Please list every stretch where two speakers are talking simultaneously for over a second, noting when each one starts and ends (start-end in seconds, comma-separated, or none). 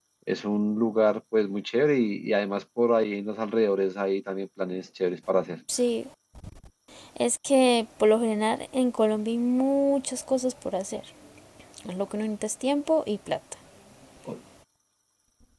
none